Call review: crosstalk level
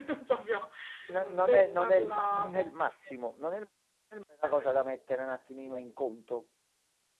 present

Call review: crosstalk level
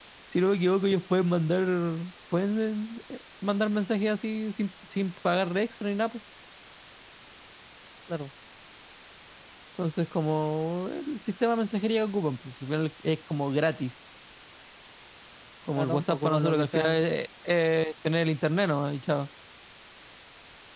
present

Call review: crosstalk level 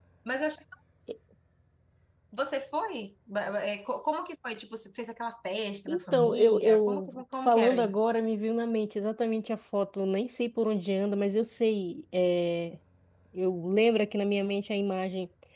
present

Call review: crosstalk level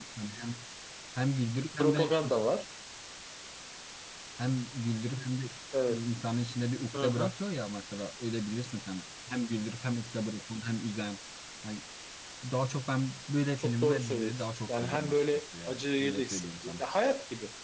present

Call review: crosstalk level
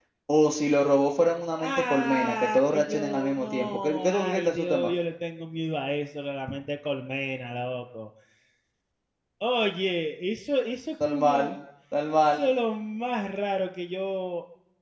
present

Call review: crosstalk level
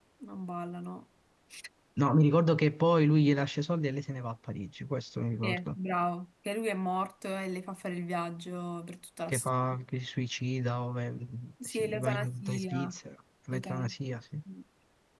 present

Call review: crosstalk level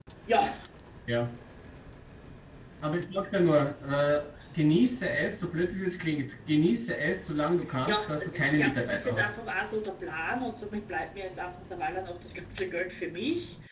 present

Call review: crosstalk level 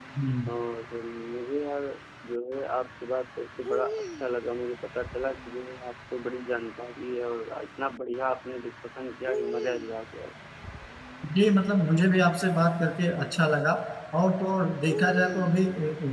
none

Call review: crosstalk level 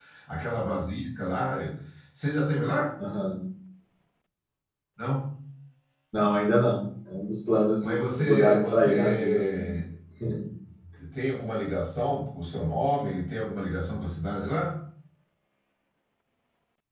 present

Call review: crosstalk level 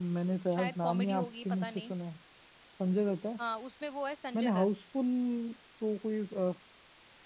present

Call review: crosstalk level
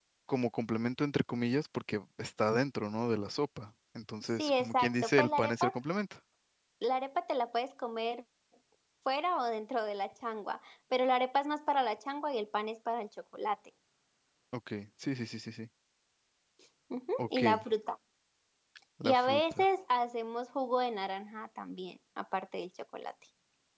present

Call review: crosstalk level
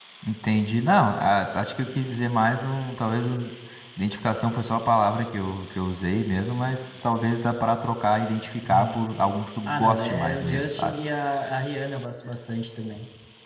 present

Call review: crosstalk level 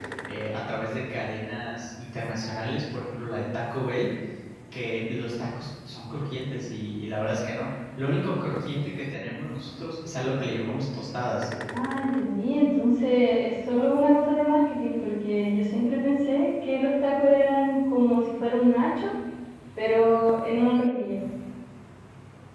none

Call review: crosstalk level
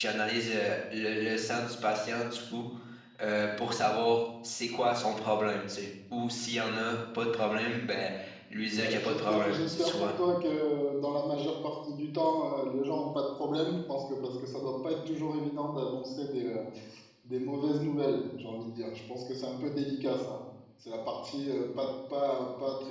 present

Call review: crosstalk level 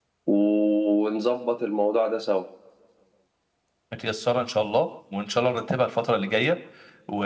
none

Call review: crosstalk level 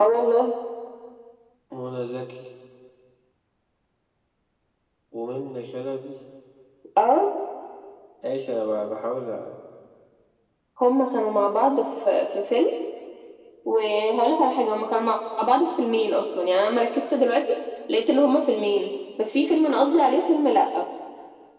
none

